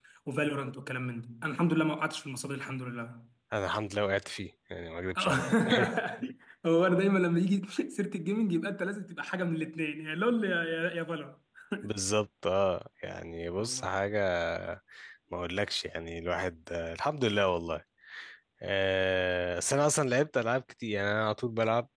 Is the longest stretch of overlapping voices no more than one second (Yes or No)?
Yes